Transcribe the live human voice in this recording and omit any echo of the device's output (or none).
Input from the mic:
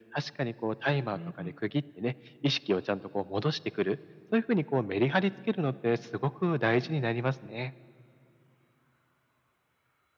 うん、